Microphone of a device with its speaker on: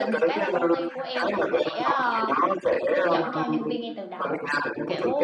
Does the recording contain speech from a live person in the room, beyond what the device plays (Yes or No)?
Yes